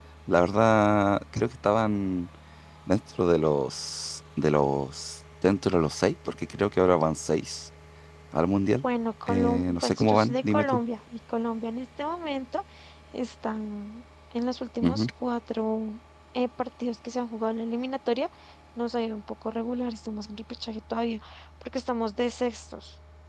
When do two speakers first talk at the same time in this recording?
9.3 s

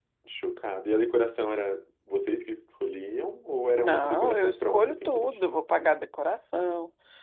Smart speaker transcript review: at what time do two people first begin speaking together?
3.8 s

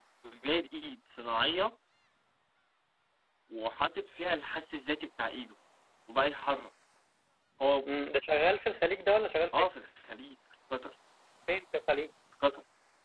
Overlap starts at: none

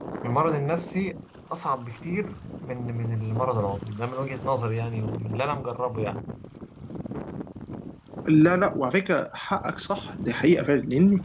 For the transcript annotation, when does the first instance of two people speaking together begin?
none

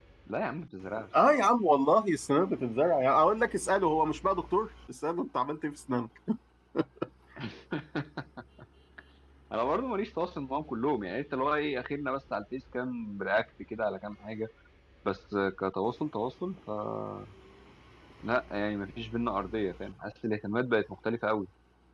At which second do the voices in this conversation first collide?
none

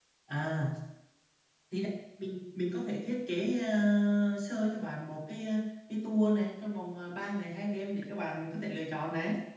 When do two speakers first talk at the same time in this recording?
none

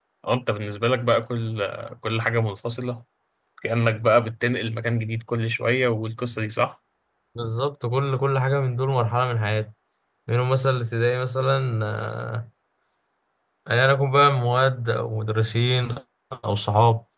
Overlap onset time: none

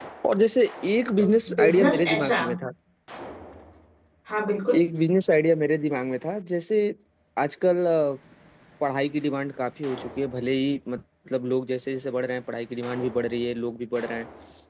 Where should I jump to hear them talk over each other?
1.2 s

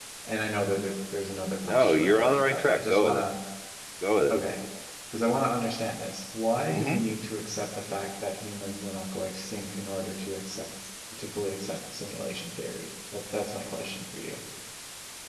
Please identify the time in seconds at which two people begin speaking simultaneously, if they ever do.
1.6 s

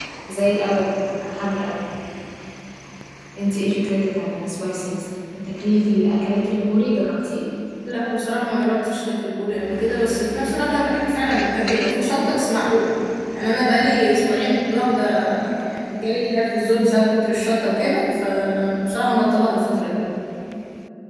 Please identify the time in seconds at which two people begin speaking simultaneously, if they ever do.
none

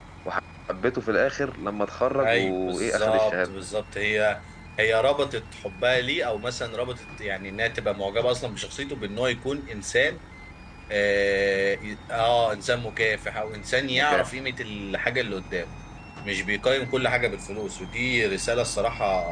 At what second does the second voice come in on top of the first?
2.2 s

